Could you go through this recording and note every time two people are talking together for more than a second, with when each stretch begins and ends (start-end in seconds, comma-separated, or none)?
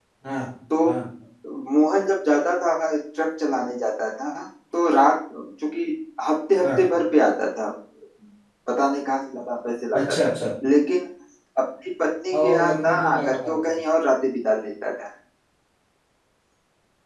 12.3-13.8